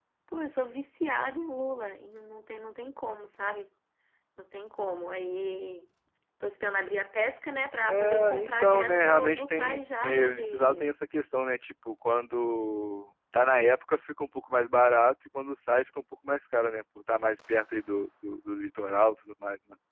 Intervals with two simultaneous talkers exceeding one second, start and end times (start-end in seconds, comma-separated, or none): 7.9-10.9